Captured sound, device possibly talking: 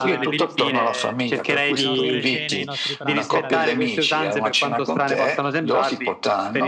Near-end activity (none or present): present